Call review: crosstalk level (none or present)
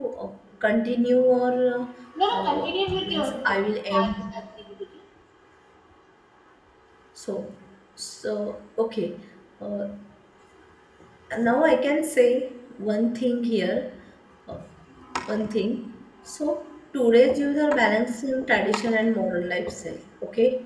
present